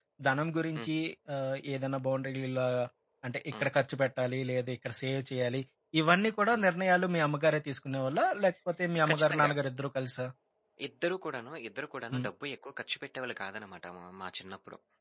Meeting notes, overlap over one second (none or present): none